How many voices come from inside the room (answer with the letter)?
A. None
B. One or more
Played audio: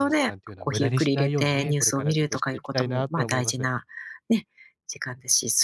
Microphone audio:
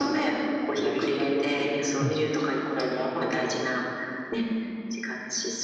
B